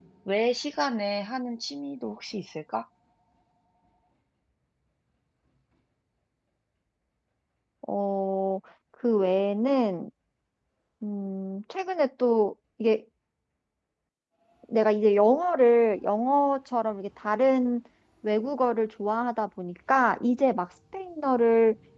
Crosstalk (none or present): none